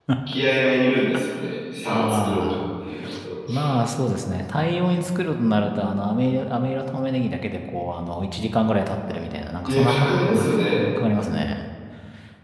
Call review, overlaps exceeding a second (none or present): present